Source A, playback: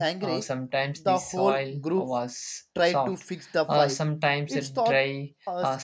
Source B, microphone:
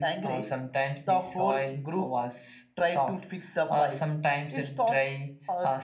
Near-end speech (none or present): none